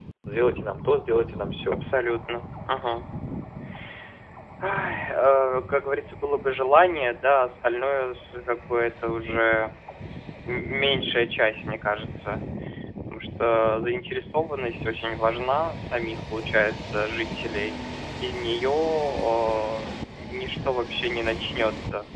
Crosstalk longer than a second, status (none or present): none